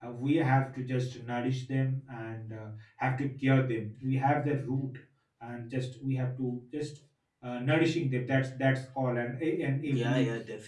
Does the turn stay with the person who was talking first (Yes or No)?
No